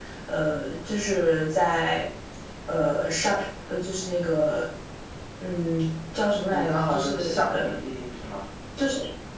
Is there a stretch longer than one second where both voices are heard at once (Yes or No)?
Yes